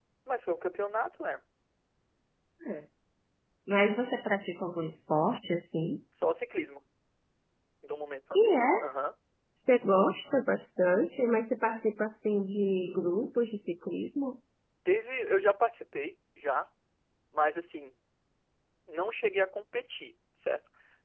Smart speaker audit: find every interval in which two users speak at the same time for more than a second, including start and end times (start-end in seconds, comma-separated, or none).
none